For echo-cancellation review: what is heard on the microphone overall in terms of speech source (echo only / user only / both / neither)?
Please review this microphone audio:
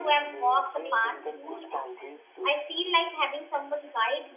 both